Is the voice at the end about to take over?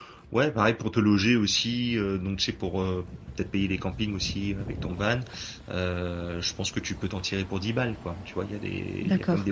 No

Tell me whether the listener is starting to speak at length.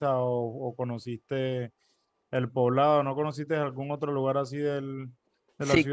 Yes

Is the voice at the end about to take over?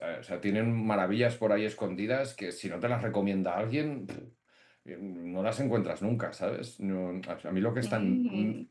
No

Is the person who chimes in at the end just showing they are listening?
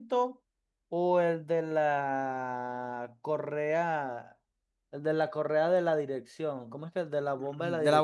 No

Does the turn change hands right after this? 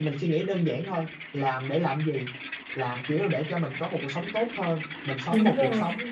No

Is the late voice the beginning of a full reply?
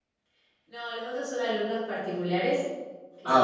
No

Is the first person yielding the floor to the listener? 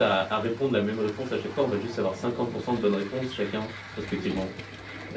No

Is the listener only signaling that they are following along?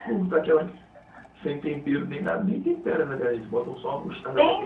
No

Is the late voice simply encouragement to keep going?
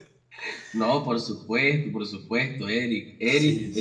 Yes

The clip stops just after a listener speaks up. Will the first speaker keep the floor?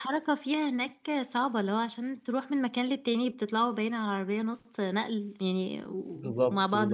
No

